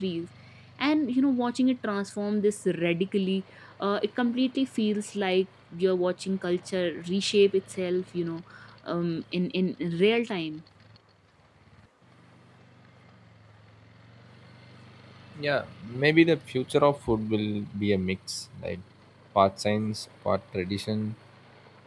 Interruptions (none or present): none